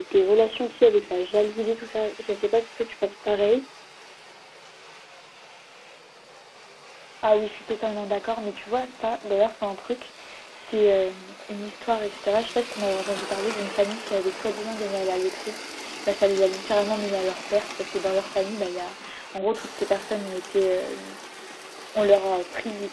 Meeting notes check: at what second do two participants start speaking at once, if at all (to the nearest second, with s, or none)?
none